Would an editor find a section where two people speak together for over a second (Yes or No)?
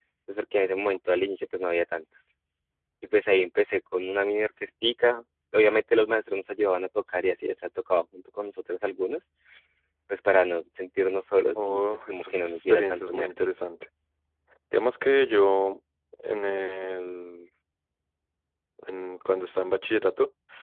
Yes